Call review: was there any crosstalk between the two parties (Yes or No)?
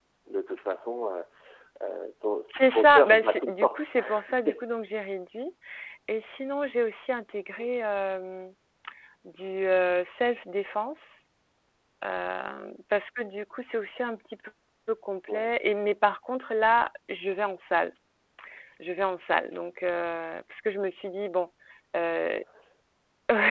Yes